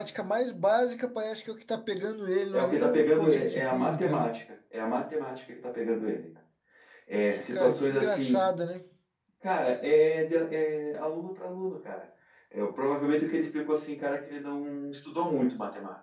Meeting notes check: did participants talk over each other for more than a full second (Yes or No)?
Yes